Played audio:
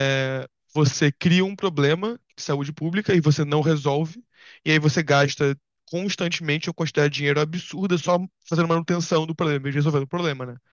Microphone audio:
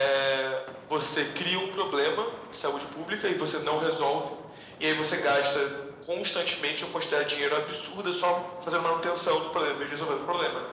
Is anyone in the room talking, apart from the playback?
No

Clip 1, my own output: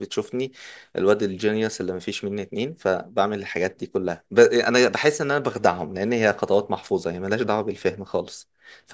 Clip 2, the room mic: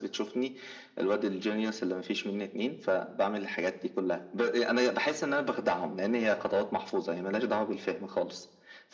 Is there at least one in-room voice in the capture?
No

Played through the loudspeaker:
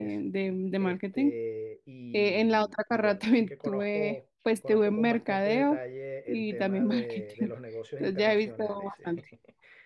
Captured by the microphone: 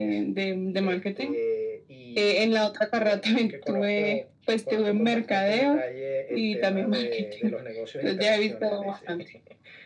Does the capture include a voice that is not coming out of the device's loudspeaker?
No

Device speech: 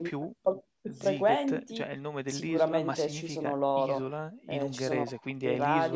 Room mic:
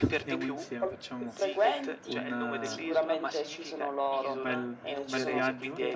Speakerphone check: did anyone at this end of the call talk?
Yes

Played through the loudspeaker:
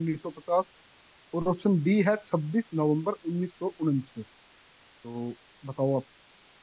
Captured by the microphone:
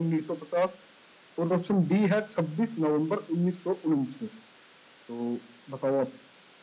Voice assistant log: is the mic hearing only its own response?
Yes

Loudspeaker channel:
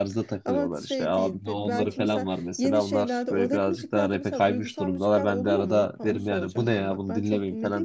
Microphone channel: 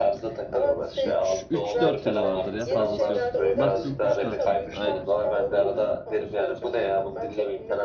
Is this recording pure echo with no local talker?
No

